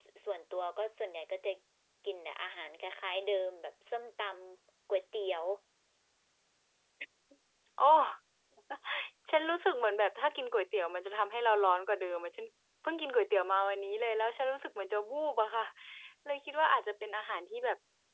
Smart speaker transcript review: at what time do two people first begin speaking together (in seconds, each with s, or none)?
none